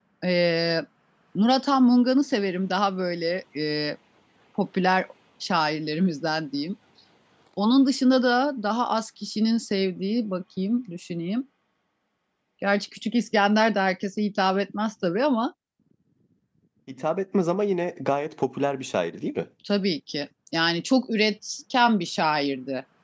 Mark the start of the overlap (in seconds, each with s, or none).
none